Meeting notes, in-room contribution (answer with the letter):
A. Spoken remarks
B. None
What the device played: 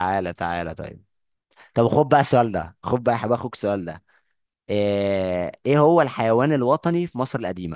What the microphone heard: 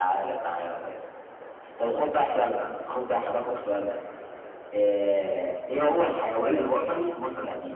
A